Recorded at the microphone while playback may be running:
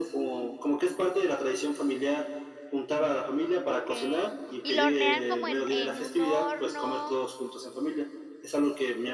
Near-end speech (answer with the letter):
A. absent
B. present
B